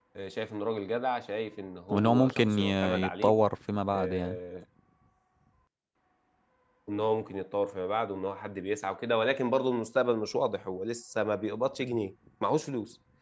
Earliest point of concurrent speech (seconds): 2 s

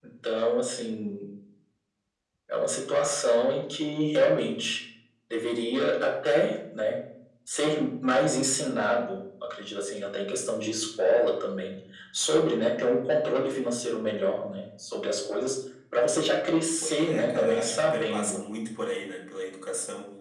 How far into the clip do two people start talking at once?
17 s

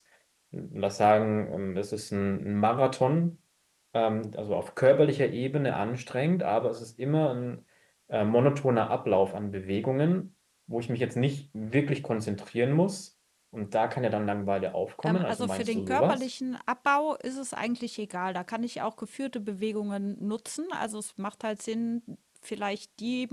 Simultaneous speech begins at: 15 s

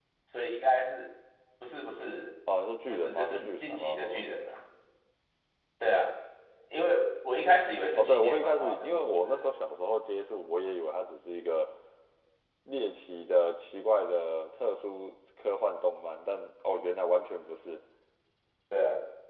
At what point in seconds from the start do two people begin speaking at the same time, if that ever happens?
3 s

